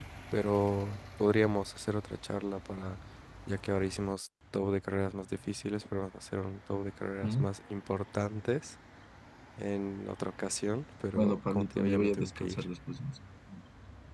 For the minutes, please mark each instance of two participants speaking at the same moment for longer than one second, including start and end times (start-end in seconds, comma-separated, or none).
11.2-12.6